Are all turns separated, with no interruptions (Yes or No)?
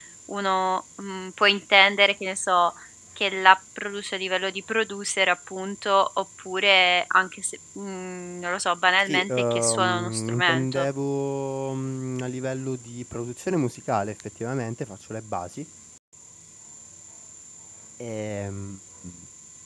No